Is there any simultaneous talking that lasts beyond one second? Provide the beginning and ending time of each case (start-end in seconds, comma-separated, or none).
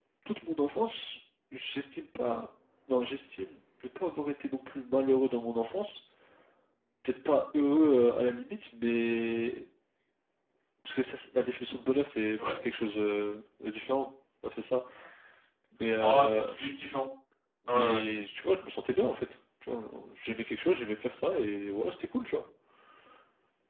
none